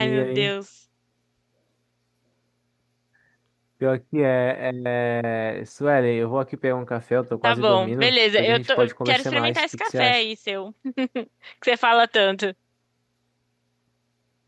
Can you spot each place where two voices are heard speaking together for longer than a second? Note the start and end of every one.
7.4-10.2

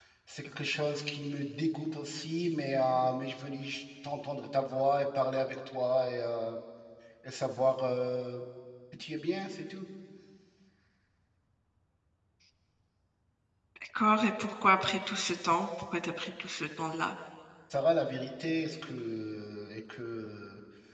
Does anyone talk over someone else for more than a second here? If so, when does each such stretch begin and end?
none

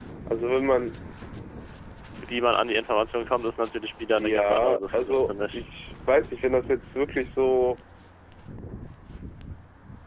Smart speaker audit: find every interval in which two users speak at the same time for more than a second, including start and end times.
4.2-5.6

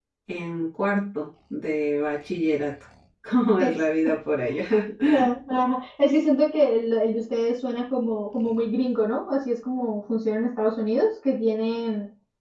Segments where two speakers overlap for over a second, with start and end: none

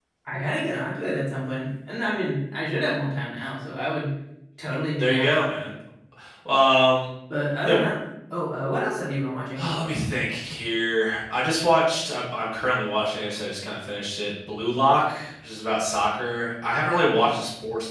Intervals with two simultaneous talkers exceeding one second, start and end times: none

